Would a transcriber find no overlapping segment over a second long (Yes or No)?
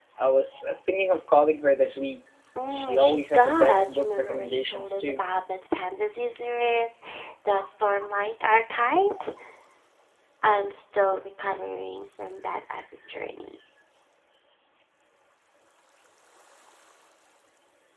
No